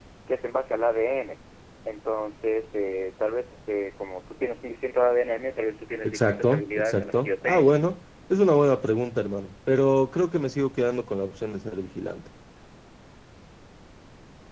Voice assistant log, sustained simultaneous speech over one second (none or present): present